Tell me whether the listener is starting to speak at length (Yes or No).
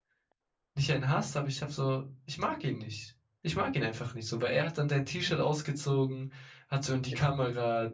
No